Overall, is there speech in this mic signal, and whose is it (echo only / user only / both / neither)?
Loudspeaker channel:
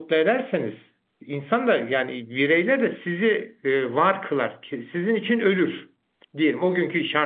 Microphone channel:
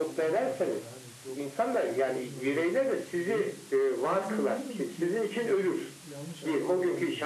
both